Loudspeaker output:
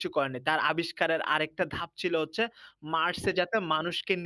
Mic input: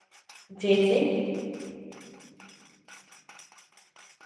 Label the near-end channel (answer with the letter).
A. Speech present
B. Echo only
A